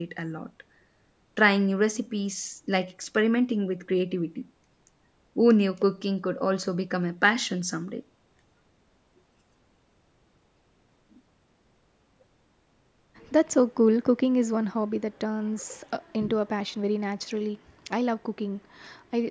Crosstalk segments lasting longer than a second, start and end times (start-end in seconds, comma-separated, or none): none